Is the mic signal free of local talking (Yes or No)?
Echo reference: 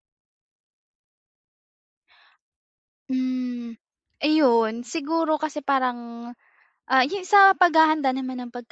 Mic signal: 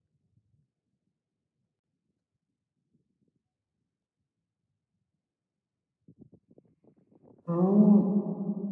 No